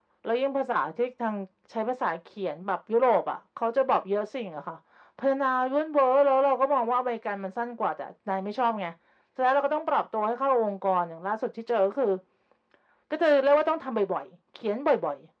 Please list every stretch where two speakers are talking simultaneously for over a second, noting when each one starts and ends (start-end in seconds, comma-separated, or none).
none